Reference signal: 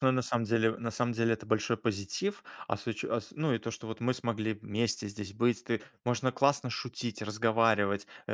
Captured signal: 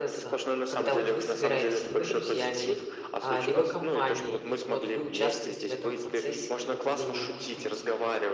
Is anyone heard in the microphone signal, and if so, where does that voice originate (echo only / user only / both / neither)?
both